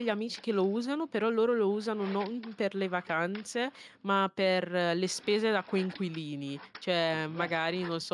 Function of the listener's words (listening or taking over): listening